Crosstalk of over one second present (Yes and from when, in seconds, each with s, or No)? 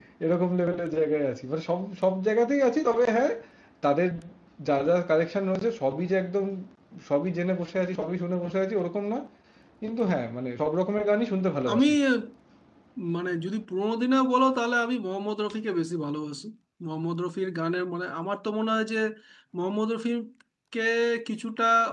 No